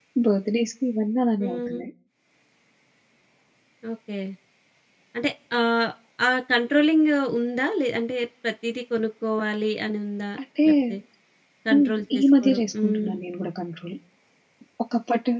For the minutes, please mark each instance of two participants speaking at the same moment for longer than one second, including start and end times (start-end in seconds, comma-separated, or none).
11.7-13.1